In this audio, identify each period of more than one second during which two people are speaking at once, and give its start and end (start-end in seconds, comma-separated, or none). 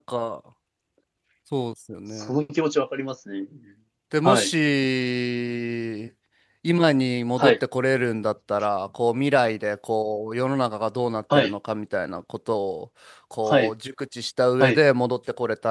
none